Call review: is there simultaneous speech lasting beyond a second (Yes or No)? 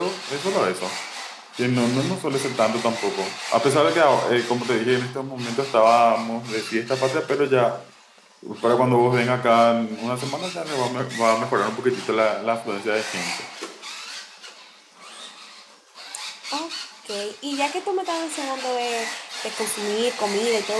No